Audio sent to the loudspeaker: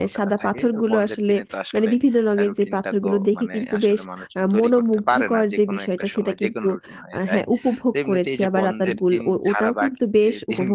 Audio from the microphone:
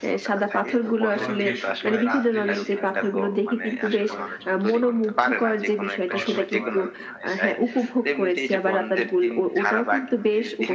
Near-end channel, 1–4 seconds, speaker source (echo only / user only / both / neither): both